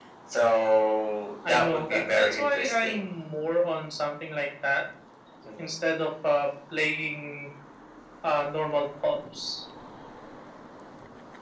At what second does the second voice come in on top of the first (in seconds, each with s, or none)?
1.4 s